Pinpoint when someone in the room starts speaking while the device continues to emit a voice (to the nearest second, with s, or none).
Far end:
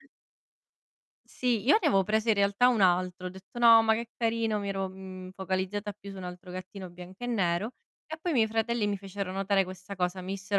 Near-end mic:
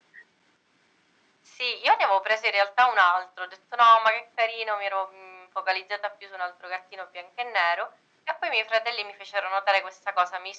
none